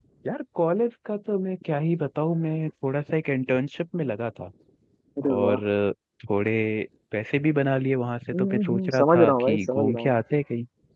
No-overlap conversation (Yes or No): No